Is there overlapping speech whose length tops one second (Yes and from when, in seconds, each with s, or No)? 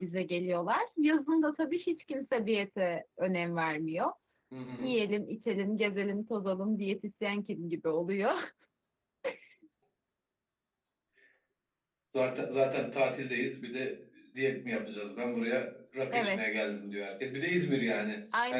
No